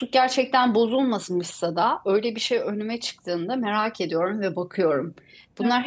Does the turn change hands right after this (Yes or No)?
No